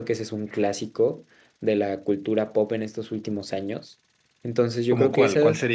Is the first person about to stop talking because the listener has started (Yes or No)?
Yes